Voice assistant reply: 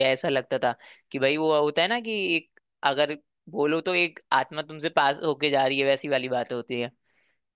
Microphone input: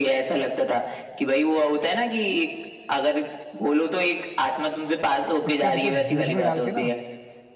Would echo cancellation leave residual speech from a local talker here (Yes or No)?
Yes